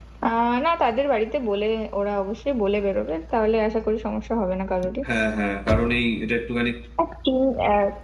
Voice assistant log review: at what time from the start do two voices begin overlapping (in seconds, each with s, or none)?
none